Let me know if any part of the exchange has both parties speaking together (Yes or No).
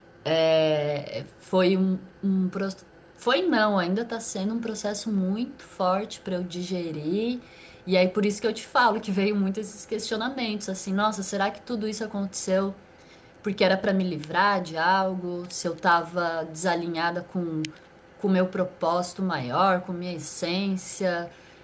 No